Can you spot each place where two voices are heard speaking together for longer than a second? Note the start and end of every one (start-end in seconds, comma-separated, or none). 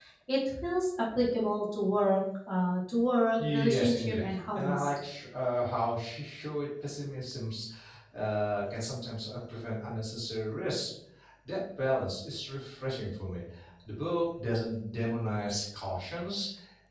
3.5-4.9